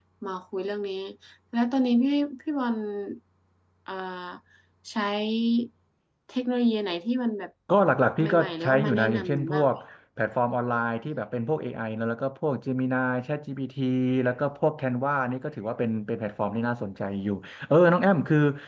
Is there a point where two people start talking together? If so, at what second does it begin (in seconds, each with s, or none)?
8.2 s